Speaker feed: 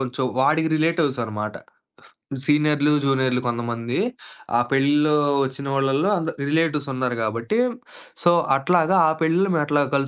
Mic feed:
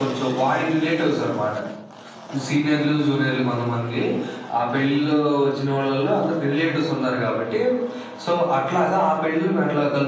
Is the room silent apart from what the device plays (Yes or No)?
Yes